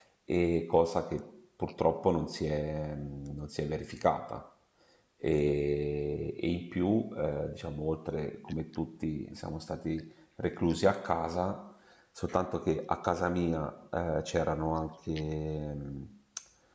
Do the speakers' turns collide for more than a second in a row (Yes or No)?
No